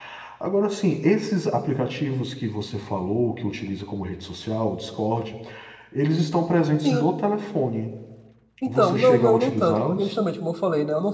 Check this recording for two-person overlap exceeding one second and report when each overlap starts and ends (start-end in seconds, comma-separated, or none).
8.7-10.1